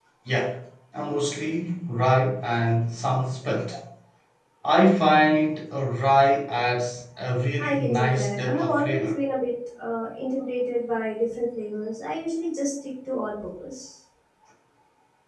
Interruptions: present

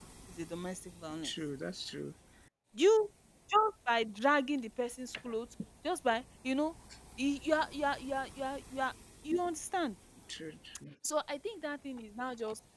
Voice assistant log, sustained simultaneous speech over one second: none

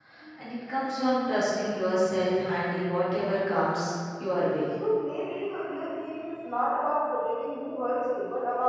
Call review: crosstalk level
none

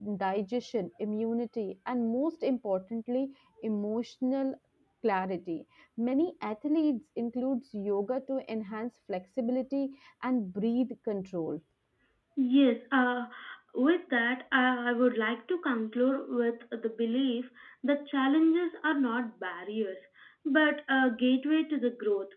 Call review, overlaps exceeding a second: none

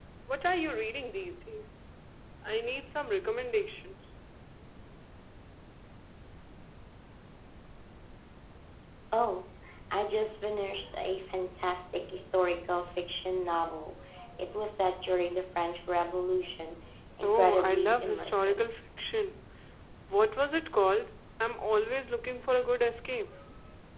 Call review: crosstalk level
present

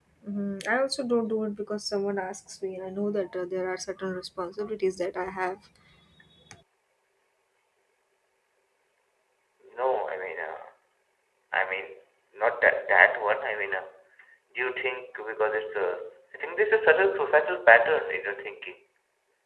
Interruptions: none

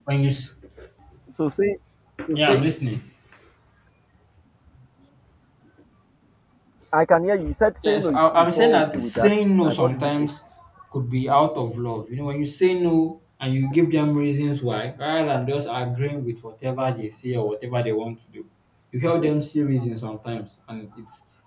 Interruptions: present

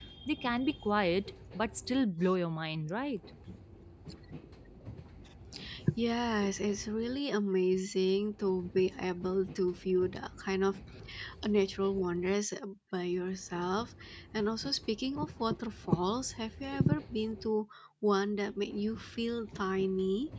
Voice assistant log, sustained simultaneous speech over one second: none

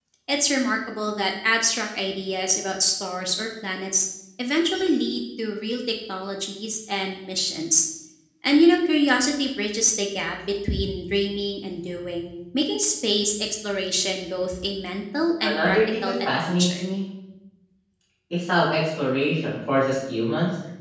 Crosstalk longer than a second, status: present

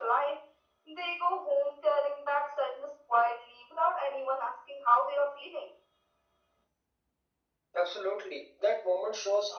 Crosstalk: none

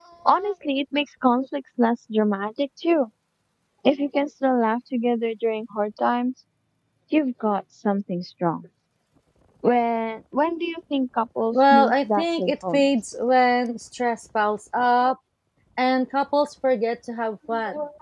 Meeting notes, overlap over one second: present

